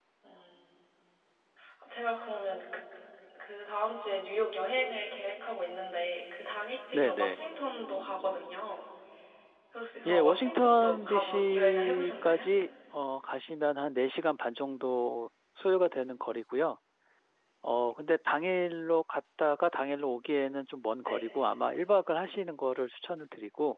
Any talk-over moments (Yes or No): Yes